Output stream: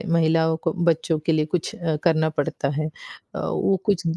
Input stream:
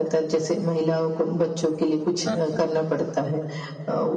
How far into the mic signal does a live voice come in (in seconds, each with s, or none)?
2.2 s